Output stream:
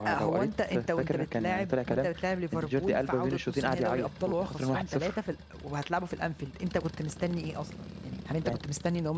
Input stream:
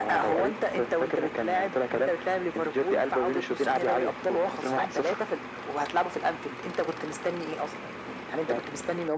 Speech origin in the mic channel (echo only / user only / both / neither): echo only